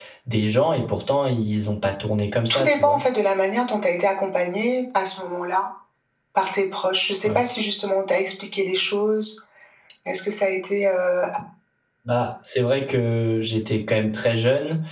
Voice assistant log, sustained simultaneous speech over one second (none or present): none